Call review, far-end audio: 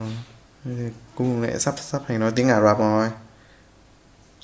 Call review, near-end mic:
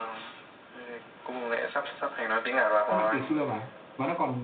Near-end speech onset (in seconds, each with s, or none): 2.9 s